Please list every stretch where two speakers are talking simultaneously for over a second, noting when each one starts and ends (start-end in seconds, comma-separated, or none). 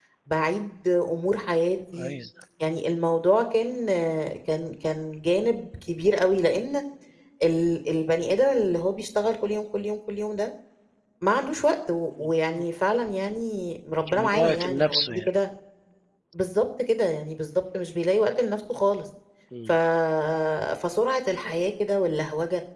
14.1-15.3